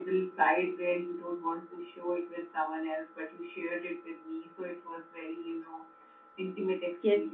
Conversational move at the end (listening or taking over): taking over